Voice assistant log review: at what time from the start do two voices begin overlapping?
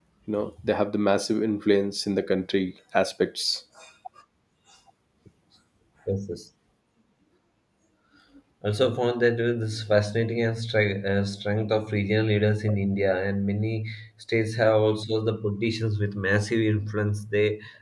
none

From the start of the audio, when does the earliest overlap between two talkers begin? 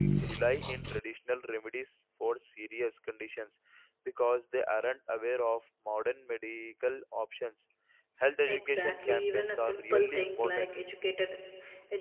8.5 s

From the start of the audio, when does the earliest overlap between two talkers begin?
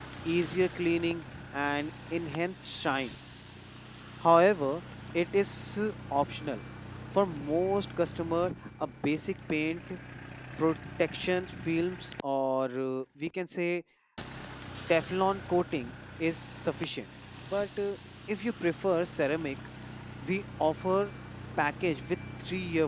none

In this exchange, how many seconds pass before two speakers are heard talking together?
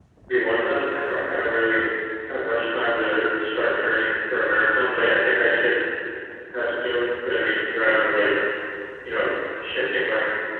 none

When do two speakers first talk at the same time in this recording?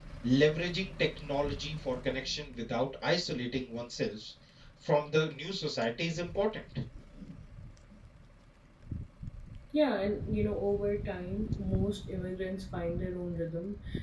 none

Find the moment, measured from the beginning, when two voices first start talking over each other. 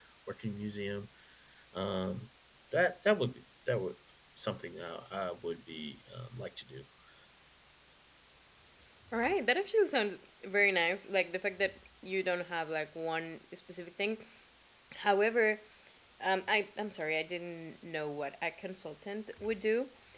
none

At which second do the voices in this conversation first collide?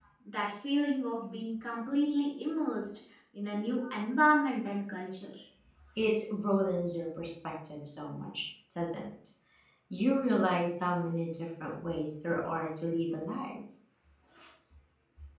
none

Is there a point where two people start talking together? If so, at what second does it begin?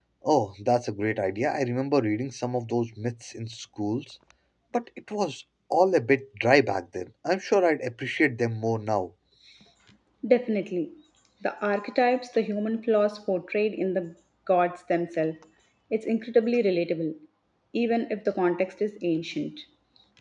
none

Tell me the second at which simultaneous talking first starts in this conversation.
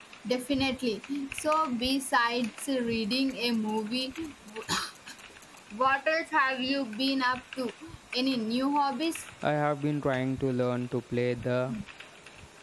none

